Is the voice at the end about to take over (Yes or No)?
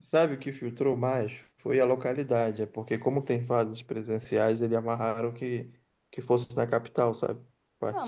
Yes